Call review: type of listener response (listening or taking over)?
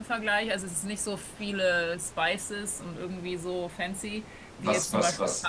taking over